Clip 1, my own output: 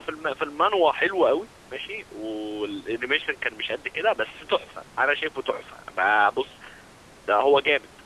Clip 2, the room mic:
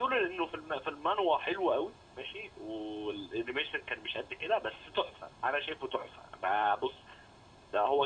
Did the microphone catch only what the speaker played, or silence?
Yes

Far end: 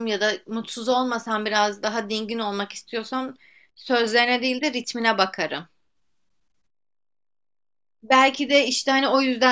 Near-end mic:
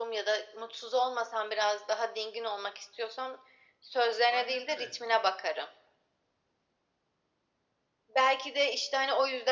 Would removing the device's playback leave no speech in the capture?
No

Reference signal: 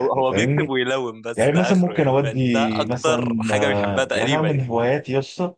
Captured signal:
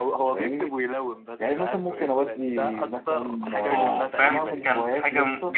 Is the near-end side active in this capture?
Yes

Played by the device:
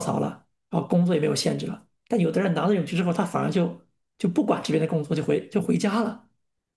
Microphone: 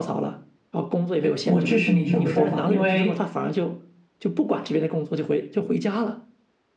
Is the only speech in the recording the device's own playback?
No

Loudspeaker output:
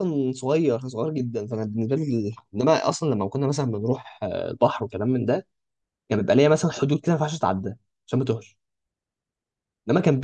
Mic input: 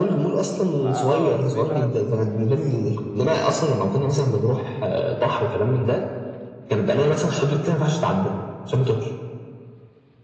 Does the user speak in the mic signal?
Yes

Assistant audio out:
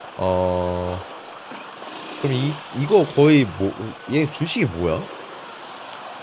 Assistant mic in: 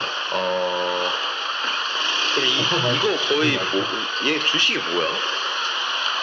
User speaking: Yes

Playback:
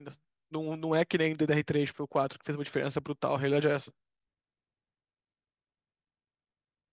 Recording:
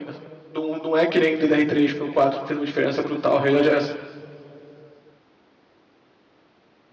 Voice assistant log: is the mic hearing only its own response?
Yes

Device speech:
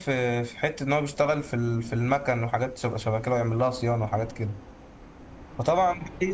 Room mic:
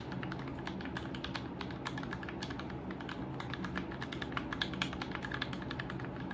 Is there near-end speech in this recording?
No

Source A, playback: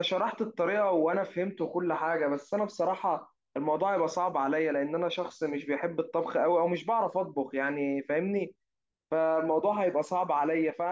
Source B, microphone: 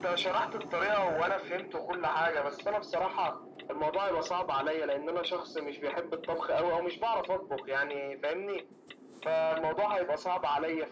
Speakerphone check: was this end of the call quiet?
Yes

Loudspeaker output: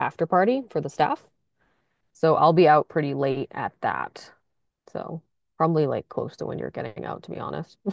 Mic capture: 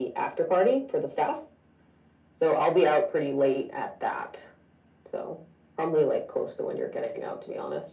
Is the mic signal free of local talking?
Yes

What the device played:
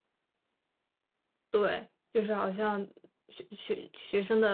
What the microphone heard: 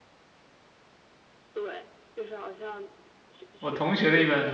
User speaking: Yes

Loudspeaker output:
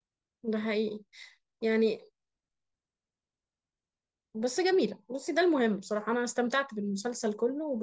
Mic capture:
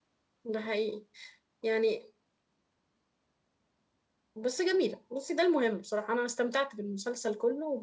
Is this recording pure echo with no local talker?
Yes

